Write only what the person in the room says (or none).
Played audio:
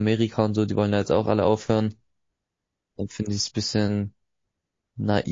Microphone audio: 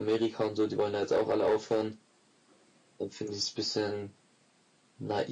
none